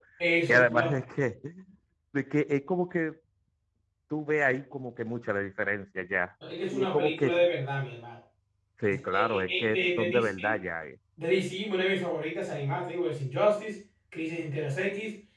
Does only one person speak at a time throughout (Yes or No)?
No